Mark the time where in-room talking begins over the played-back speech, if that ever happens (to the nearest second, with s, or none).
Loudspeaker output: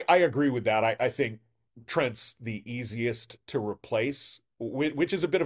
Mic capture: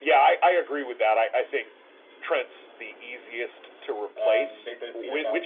4 s